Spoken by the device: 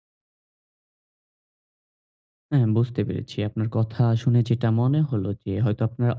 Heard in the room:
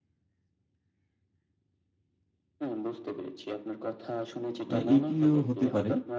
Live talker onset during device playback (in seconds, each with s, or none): 4.7 s